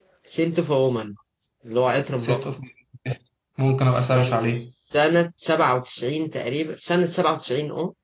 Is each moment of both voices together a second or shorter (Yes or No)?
Yes